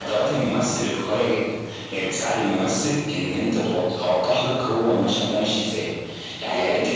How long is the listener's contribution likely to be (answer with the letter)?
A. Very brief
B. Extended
A